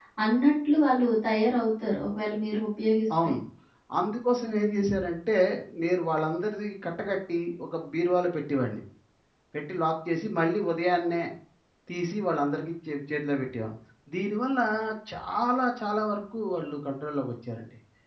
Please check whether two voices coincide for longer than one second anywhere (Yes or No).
No